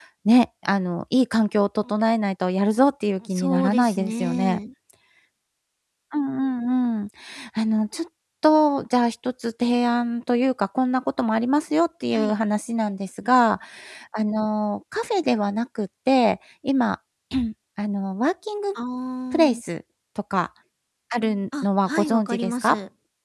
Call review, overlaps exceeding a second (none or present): present